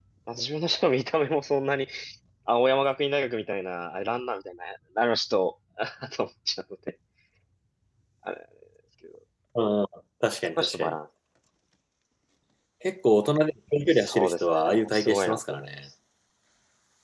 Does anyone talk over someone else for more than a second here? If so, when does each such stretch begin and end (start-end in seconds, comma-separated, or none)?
13.9-15.7